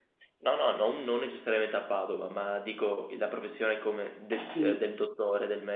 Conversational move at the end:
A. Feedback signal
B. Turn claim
A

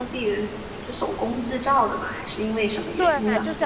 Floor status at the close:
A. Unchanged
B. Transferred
B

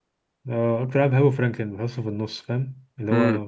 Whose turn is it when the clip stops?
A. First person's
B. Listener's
B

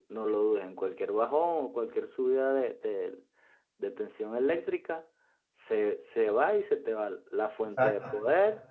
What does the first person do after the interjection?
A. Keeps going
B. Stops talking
A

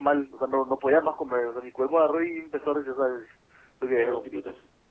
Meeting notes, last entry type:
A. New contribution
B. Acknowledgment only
A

